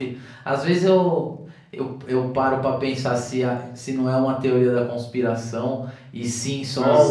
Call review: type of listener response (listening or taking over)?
listening